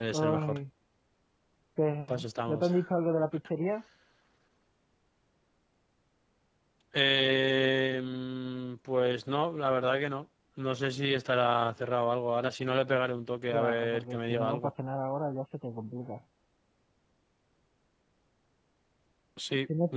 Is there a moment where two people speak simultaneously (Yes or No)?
Yes